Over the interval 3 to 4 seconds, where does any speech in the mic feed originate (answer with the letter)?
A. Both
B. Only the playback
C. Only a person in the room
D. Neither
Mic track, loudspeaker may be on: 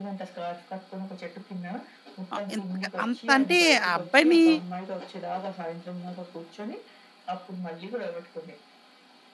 A